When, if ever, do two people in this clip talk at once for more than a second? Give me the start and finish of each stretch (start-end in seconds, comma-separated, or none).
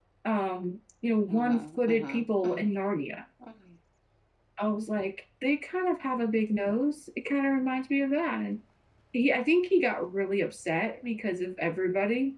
1.3-2.6